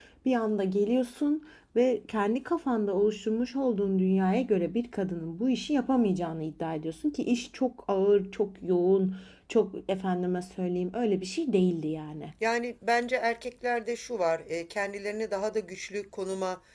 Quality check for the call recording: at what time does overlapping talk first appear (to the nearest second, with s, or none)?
none